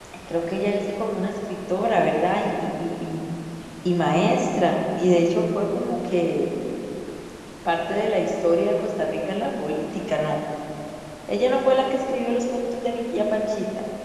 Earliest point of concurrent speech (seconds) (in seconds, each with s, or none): none